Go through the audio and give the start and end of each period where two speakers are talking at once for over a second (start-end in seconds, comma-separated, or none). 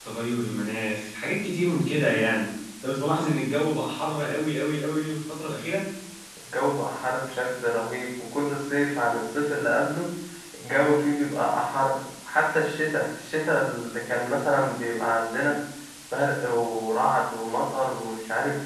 none